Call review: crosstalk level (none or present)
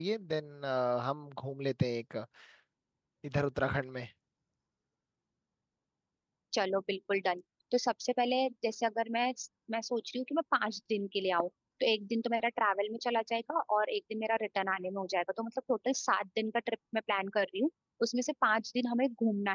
none